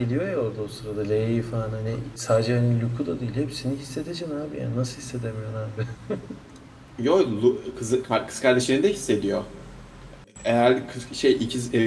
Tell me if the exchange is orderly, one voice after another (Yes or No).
Yes